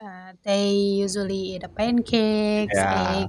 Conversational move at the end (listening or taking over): listening